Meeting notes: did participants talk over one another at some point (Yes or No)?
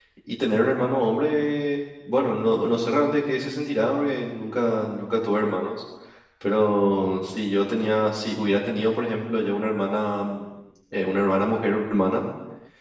No